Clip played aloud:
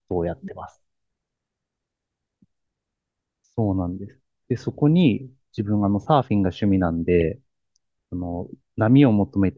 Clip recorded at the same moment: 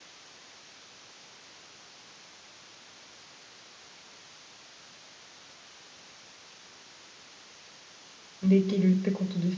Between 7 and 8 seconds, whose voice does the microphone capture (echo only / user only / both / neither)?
neither